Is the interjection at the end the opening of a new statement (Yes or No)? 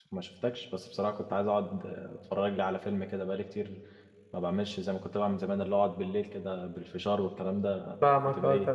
Yes